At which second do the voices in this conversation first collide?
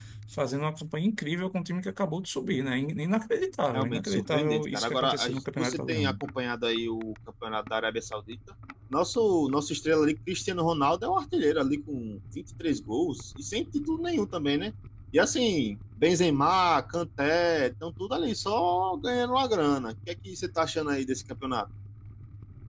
3.7 s

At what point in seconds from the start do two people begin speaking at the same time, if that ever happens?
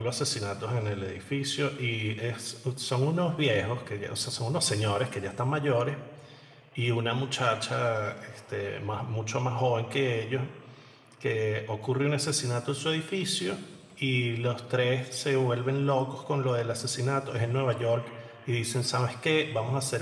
none

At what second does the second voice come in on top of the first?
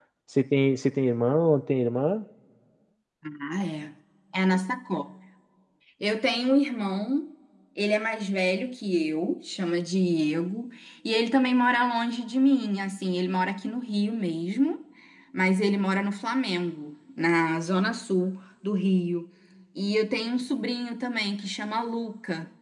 none

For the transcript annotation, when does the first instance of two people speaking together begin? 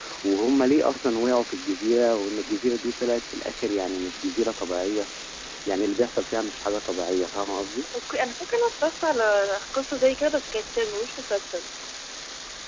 none

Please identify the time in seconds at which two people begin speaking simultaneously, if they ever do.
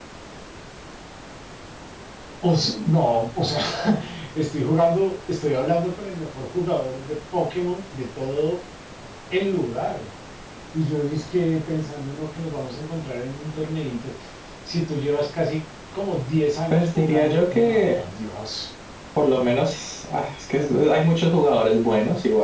16.7 s

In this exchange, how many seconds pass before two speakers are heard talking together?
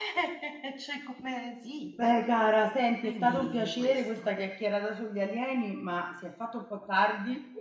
3.0 s

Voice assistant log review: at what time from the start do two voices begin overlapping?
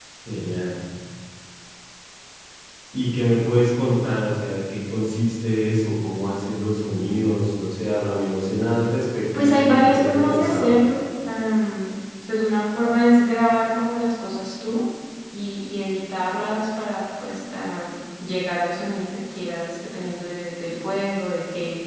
9.3 s

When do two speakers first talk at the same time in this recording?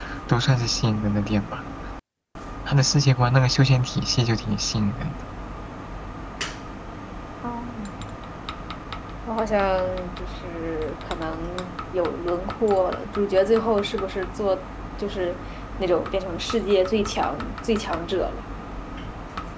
none

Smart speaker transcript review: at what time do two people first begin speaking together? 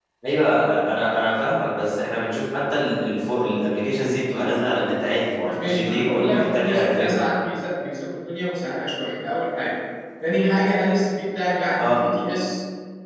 5.4 s

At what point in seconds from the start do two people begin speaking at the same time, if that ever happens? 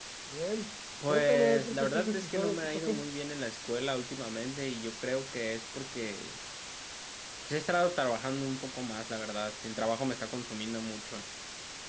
1.1 s

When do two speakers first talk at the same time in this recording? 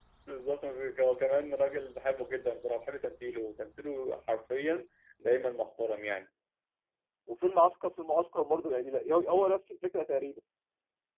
none

